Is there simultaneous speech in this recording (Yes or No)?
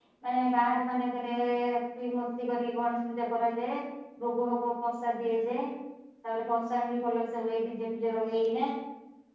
No